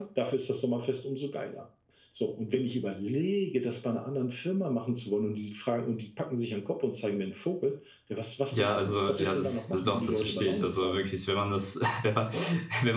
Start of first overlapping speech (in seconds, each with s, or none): 8.5 s